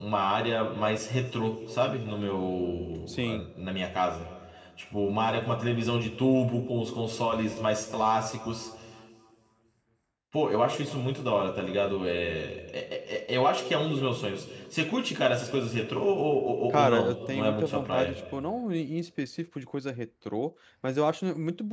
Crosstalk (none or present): present